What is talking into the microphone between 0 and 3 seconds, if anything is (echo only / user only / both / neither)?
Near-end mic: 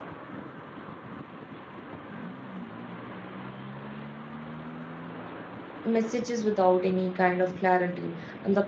neither